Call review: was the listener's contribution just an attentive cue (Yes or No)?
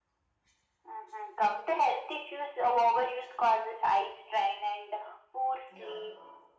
Yes